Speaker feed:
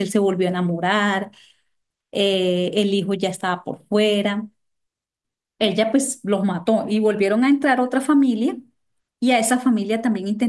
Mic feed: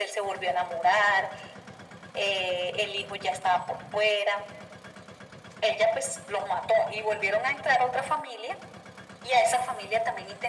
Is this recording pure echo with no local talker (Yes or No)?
Yes